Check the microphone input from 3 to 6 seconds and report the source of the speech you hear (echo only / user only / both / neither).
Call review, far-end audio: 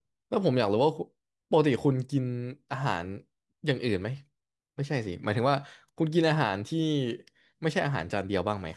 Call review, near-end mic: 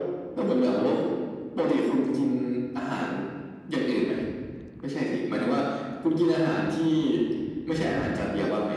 echo only